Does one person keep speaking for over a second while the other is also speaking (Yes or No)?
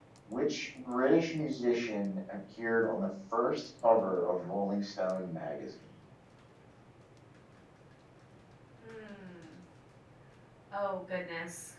No